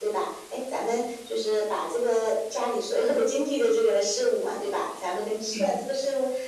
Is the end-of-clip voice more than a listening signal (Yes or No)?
No